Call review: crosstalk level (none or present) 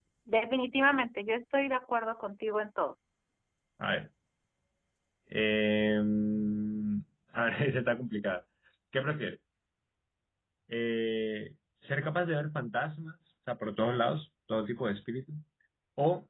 none